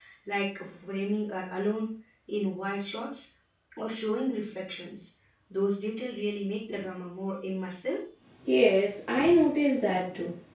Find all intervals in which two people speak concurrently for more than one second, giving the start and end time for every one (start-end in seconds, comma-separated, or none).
none